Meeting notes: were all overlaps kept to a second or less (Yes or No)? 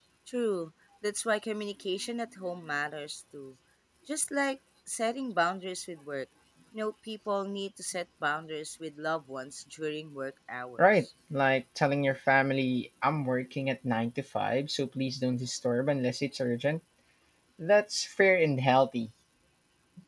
Yes